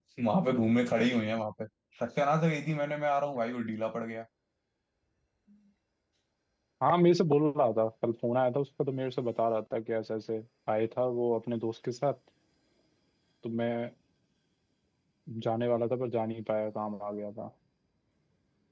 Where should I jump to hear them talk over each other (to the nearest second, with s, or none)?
none